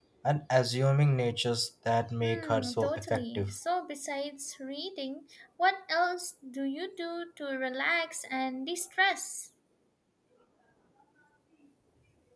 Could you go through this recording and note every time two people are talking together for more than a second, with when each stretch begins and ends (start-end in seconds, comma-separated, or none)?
2.2-3.5